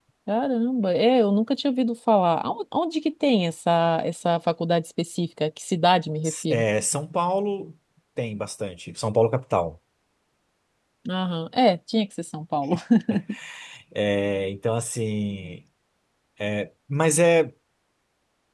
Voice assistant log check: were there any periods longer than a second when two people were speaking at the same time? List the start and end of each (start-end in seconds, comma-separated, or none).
none